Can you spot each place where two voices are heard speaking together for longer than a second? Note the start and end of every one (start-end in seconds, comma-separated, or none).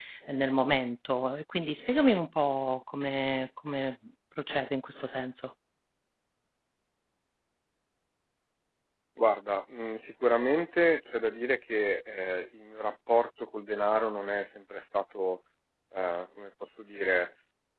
none